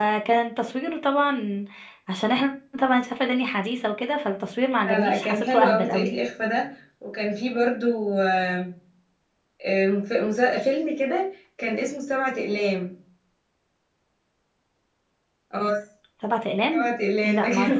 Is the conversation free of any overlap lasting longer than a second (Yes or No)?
No